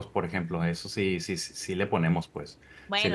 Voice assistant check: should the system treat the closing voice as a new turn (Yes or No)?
Yes